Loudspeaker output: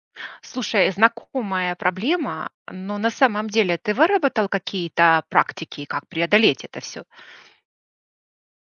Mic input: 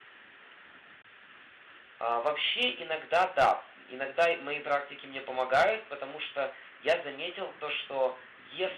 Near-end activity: present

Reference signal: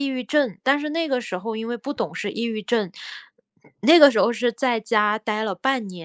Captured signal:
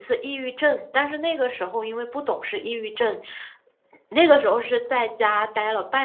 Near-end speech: none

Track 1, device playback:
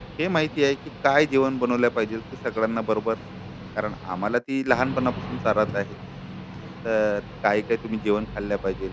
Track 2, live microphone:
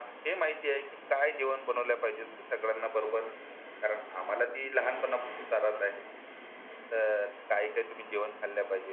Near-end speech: none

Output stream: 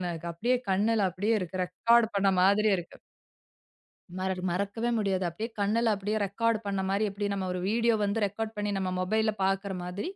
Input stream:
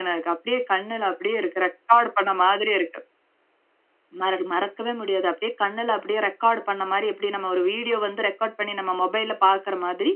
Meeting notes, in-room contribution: none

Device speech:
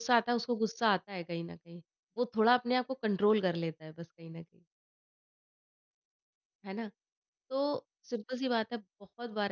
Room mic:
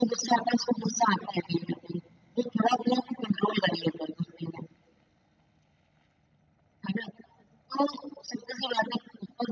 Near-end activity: none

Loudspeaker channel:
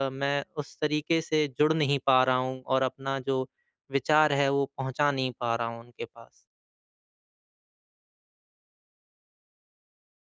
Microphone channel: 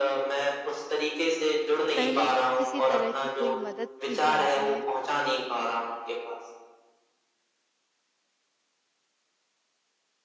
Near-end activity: present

